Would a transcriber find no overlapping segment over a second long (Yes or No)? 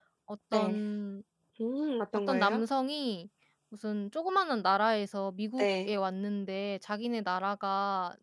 Yes